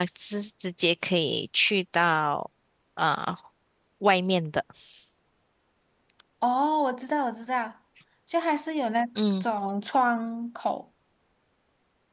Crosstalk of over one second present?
No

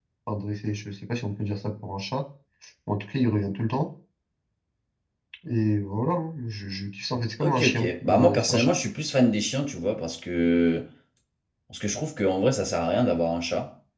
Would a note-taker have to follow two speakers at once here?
Yes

